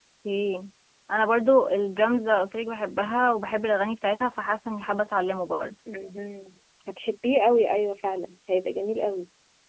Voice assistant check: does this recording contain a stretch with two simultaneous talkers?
No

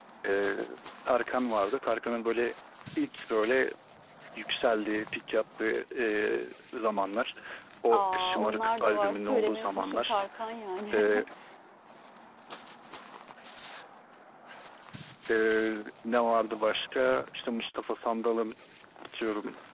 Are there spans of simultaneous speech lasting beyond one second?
Yes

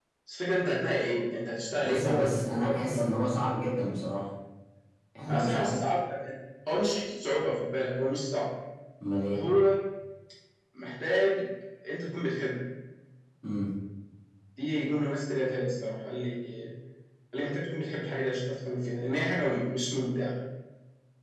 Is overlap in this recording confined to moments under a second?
No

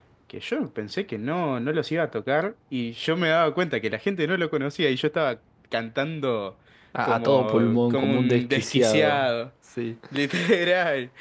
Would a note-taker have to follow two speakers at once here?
Yes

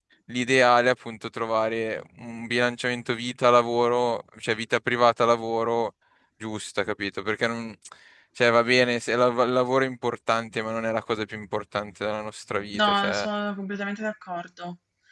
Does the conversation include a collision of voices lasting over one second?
No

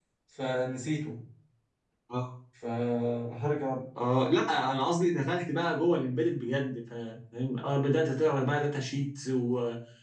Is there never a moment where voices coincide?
Yes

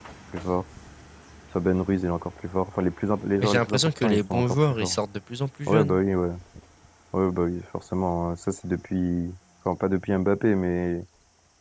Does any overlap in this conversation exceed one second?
Yes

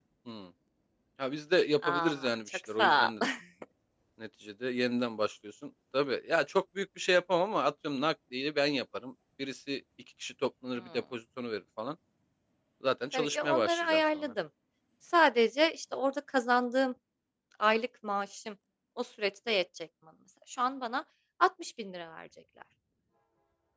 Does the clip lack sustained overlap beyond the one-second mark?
No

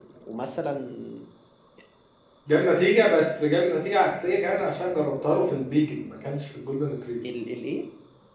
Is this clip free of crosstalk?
Yes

